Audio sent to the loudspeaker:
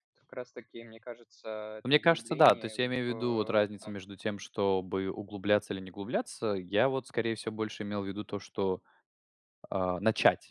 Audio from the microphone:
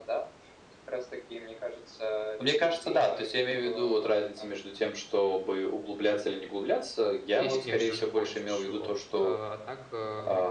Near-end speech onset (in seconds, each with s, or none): 7.3 s